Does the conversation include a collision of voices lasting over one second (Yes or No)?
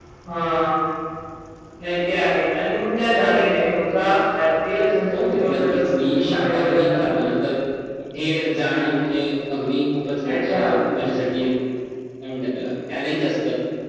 Yes